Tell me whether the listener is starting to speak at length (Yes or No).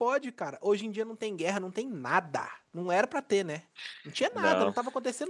No